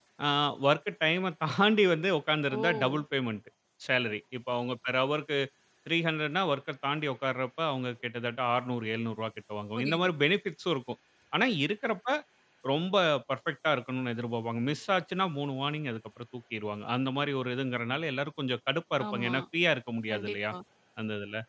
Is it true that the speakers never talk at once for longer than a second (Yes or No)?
Yes